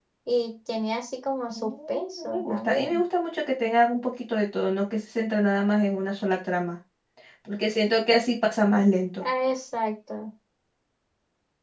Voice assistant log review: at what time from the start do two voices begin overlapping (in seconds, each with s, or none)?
1.6 s